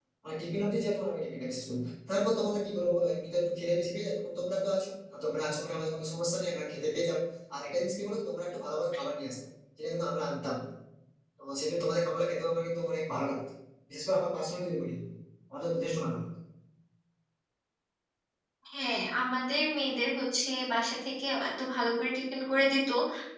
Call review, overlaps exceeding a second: none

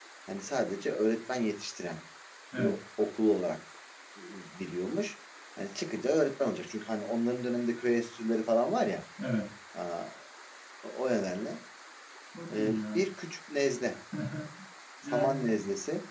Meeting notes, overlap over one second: none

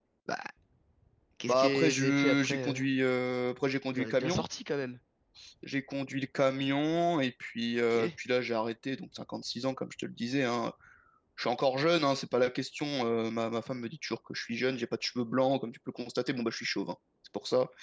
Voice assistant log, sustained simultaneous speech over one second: present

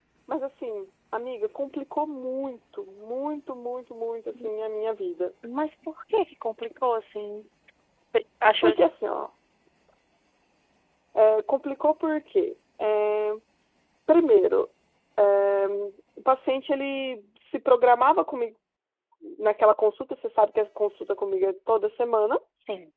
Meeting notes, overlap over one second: none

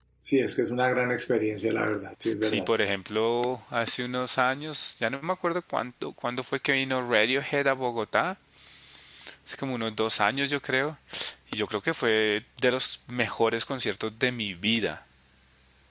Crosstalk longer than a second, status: none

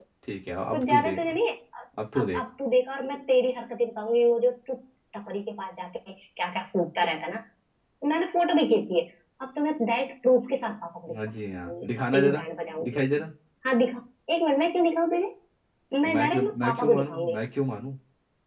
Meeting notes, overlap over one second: present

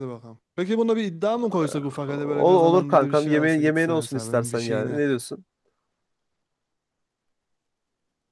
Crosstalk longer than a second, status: present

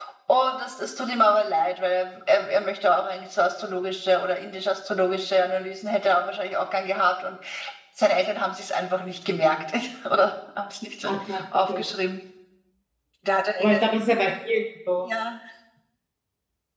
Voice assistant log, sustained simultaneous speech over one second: none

